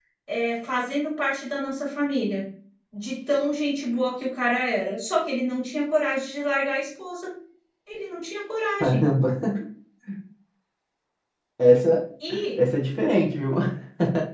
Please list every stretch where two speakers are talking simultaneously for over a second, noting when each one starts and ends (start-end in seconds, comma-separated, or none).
none